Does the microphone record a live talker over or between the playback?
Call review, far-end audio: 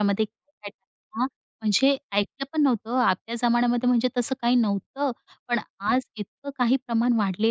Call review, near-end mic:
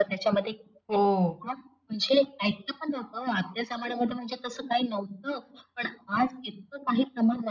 Yes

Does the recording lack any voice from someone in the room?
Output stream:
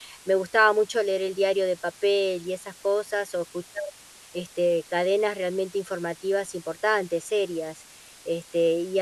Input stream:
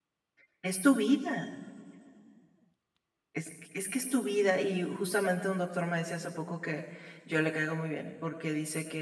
No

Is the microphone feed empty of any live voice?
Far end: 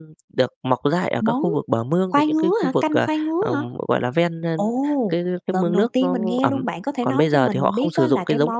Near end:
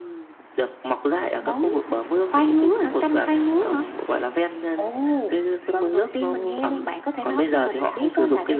Yes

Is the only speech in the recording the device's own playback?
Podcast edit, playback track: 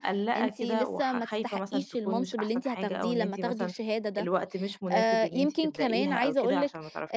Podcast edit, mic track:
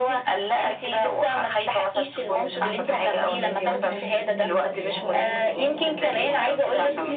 No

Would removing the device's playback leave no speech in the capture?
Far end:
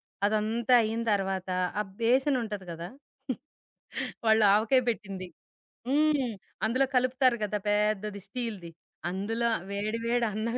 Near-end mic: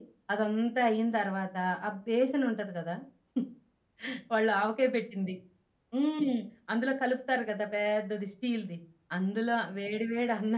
Yes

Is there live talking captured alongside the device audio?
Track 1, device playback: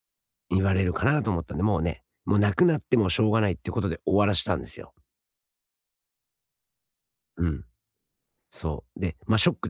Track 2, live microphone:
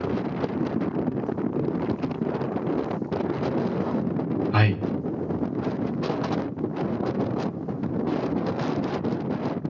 Yes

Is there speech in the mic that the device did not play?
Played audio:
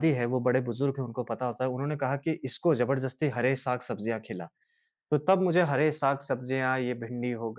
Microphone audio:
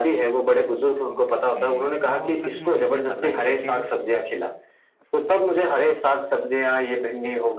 Yes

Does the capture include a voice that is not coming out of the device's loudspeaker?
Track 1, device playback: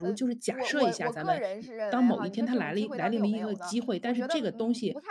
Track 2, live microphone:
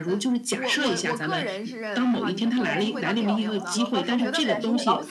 Yes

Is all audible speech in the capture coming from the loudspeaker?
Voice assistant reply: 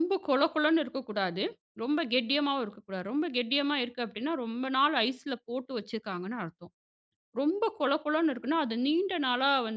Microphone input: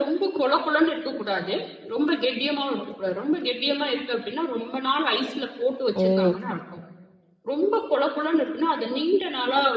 No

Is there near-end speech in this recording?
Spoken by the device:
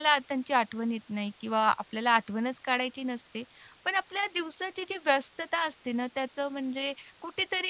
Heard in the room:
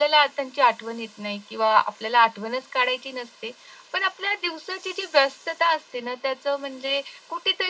No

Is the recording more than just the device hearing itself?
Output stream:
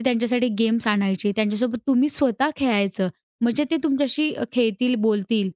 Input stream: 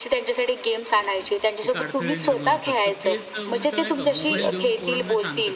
Yes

